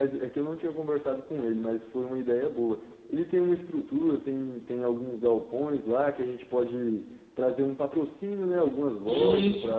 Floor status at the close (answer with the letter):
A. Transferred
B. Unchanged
B